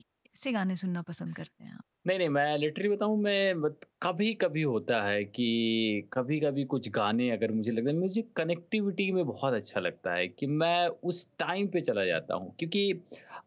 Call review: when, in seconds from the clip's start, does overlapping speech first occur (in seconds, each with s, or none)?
none